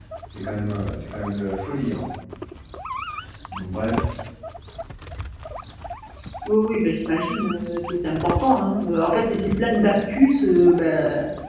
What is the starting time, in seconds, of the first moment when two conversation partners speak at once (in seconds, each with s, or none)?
none